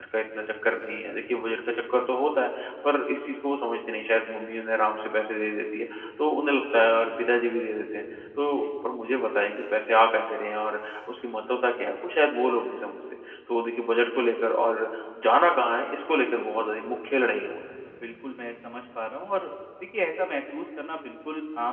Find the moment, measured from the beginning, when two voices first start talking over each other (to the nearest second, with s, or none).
none